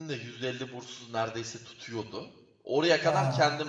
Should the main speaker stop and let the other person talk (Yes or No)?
No